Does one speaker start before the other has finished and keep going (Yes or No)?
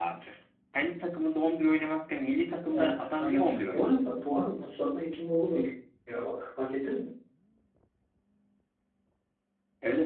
Yes